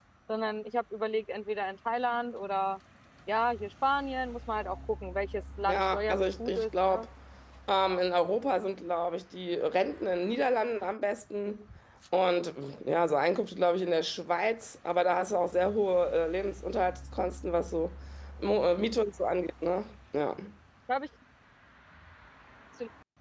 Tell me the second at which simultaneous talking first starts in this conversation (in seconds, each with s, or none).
5.7 s